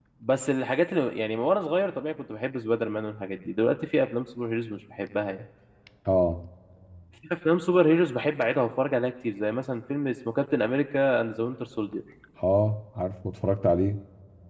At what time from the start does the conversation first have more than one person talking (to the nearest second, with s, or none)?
none